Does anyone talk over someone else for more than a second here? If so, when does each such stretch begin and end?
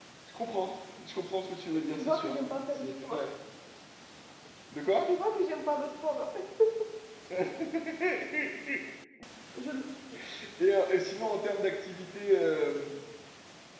1.9-3.2

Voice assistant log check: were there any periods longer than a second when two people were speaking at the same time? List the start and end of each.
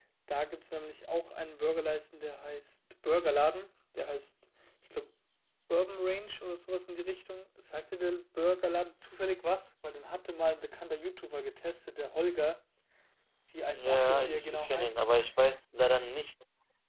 13.7-14.9

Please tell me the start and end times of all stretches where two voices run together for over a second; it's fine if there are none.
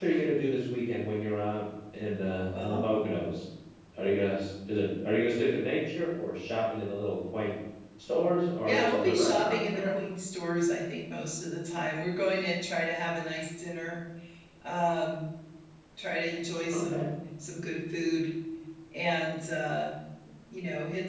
8.7-10.0

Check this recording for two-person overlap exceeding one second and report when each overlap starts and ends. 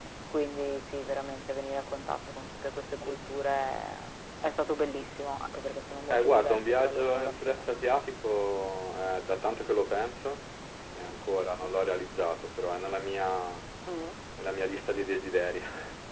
6.1-7.7

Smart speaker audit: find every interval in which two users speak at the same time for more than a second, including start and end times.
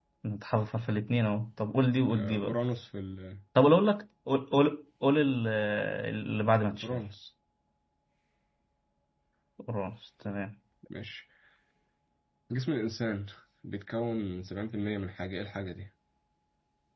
none

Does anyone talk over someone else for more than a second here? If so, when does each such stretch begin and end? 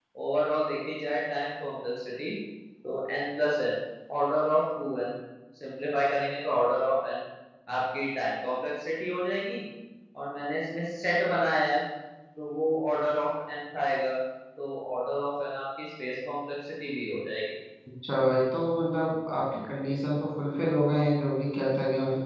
none

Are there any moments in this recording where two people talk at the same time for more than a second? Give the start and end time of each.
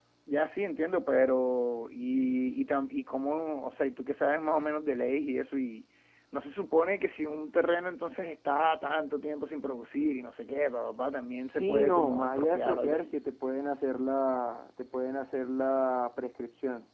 11.5-13.1

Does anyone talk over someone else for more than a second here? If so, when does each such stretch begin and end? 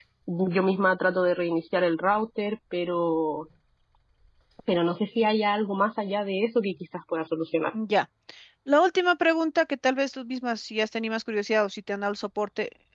none

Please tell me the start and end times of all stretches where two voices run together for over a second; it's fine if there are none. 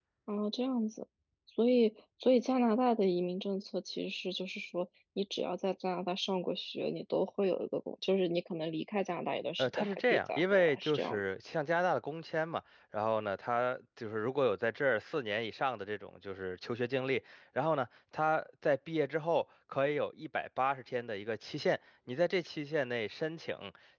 9.6-11.2

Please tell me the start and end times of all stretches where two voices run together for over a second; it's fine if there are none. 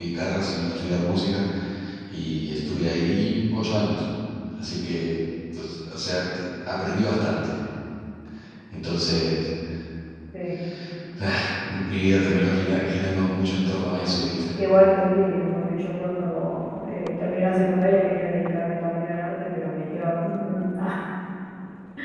none

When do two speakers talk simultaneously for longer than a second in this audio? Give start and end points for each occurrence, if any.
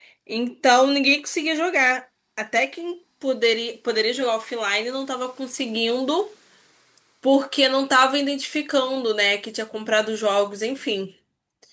none

